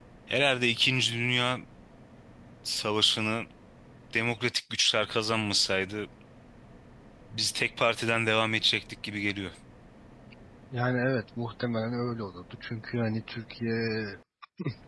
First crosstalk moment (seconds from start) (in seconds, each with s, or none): none